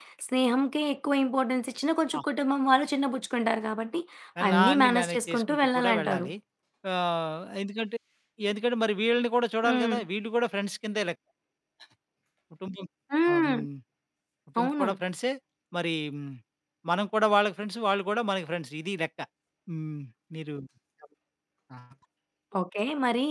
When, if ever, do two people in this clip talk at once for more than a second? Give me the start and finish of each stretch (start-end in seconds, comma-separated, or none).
4.5-6.3